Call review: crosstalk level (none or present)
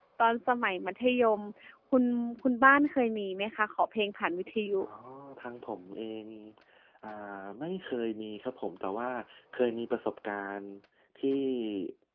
none